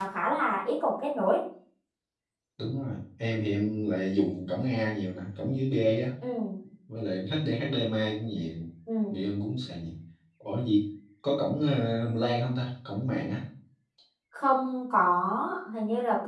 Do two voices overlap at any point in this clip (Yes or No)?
No